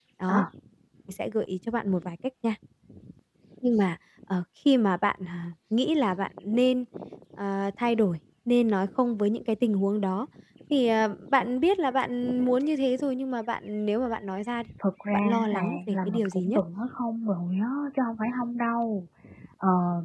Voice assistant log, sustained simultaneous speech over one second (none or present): present